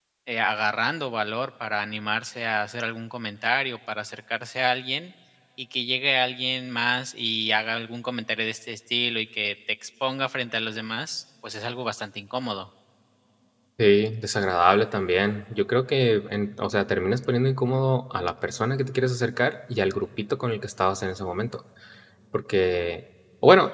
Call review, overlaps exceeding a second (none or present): none